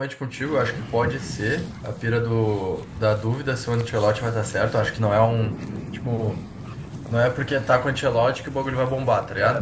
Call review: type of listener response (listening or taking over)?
listening